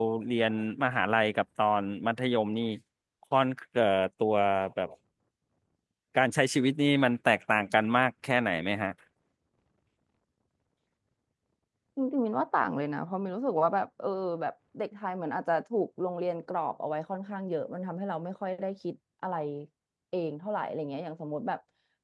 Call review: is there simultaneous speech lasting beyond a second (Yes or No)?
No